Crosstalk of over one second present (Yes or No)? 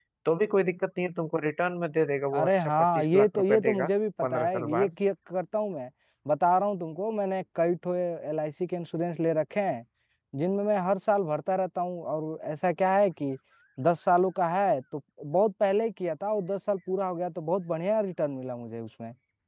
Yes